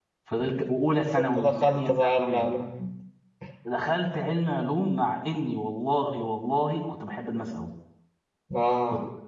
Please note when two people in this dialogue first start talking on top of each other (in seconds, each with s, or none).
1.2 s